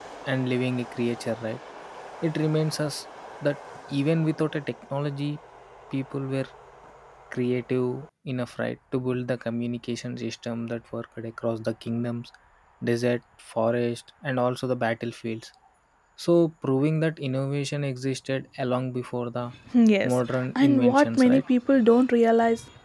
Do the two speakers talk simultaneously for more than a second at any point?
Yes, from 20.0 s

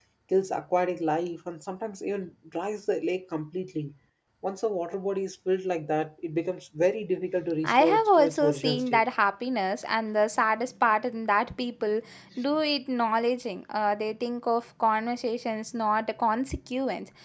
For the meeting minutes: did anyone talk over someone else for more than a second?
Yes, from 7.6 s

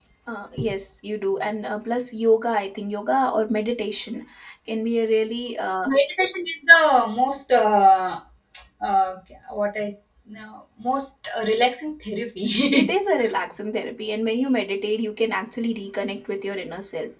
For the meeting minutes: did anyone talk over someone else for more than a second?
No

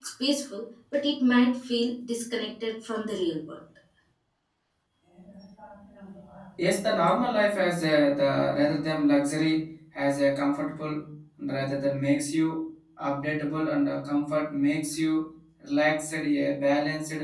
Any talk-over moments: No

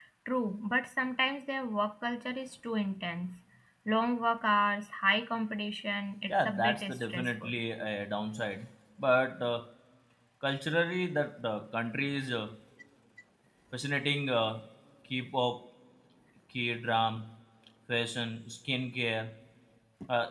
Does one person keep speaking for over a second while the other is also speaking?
Yes, from 6.3 s

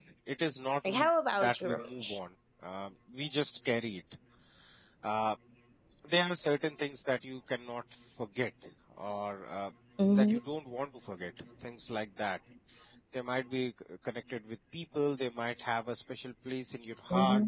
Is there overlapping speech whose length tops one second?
Yes, from 0.9 s

